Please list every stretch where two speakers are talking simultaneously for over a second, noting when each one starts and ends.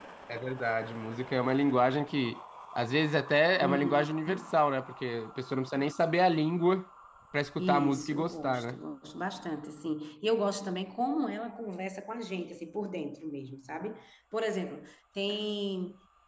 7.6-8.8

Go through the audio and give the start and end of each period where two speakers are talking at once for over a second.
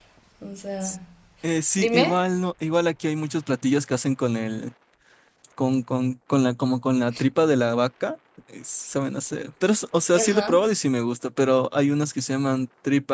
none

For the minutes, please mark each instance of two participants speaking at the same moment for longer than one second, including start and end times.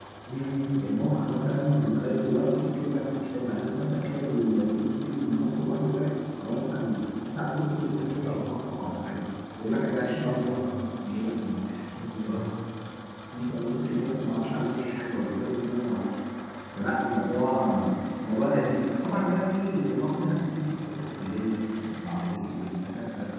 none

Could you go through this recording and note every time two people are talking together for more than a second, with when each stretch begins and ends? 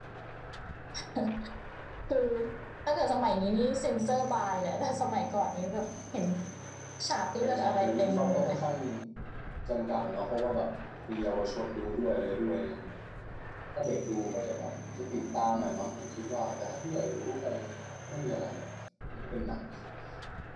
7.4-8.6

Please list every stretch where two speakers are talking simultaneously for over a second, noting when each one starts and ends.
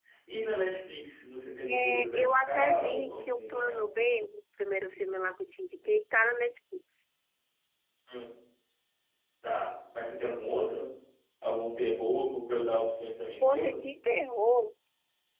1.7-3.8

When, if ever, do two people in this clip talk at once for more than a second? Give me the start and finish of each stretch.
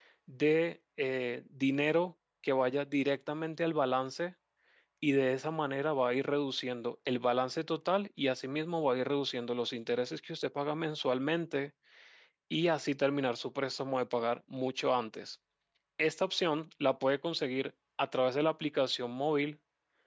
none

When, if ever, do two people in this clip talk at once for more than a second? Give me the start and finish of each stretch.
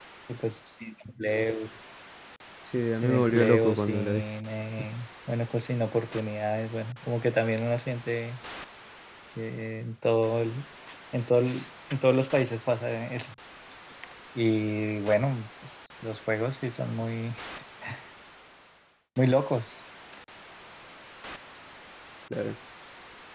3.0-4.2

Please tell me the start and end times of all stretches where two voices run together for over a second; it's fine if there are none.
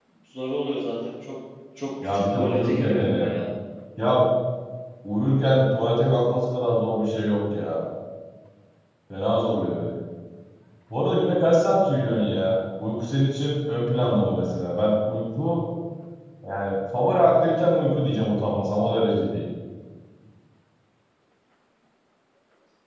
2.0-3.3

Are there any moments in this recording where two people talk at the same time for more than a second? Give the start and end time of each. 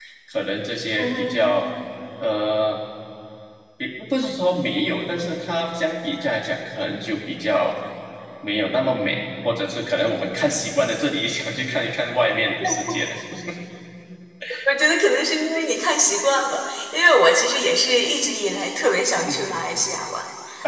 none

